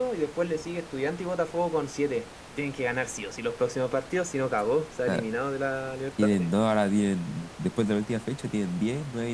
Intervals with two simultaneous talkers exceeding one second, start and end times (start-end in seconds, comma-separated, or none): none